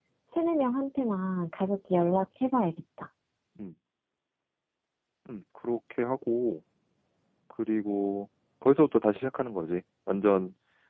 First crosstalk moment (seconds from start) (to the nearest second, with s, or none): none